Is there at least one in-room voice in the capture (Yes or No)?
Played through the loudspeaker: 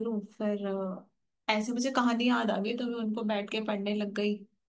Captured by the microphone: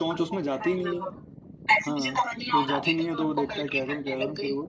Yes